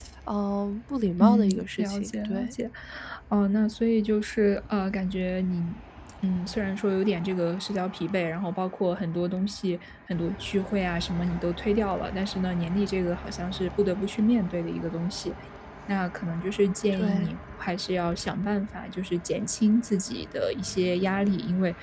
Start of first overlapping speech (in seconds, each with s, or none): 1.2 s